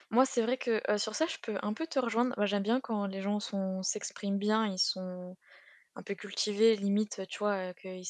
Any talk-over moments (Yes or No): No